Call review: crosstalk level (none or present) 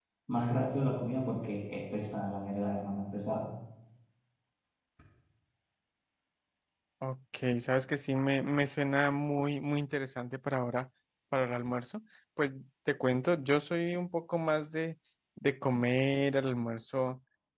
none